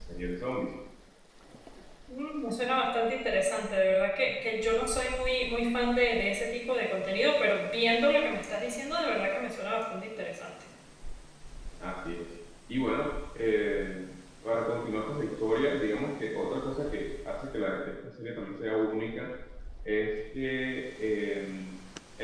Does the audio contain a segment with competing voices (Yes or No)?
No